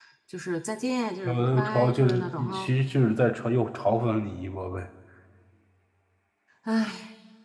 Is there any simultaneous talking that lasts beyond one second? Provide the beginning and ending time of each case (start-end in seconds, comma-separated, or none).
1.2-2.7